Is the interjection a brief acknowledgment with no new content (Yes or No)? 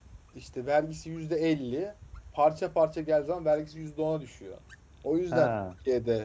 Yes